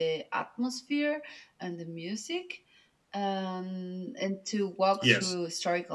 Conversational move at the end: listening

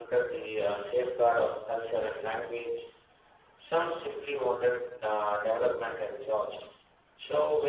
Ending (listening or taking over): listening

